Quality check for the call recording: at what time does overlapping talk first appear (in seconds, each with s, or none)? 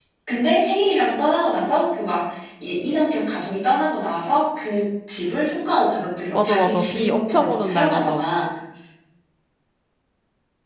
6.3 s